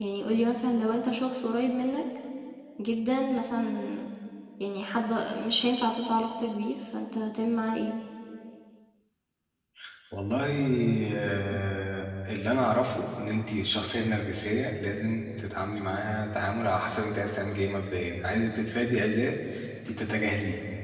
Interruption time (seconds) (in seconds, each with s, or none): none